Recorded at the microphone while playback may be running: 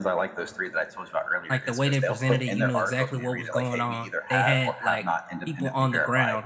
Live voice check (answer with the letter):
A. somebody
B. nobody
A